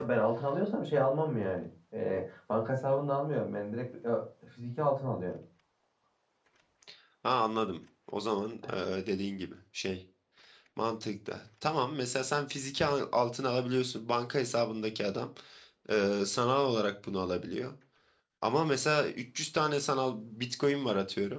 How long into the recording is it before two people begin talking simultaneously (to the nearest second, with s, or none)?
none